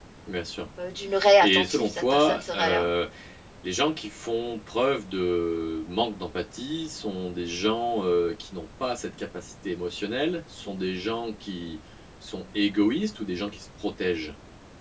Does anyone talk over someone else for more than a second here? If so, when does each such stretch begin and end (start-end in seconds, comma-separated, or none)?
1.4-2.9